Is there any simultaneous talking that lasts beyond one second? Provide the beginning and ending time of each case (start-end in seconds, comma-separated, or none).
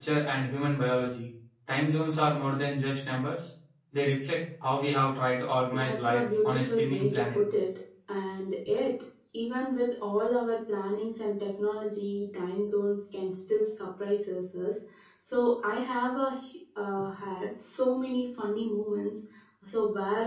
5.7-7.4